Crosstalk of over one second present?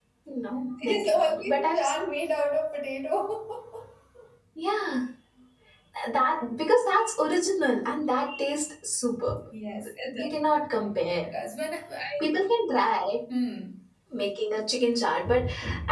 Yes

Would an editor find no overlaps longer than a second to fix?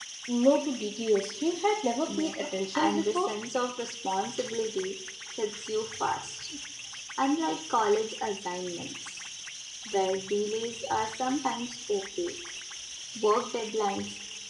No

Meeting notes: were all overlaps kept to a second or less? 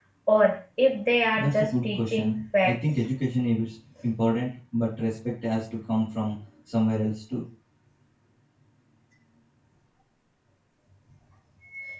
No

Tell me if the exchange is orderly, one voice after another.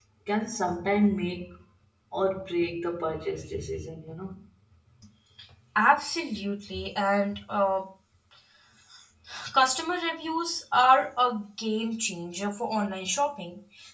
Yes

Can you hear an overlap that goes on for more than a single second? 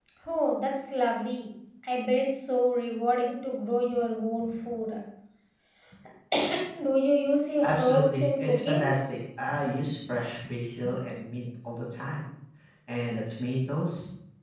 Yes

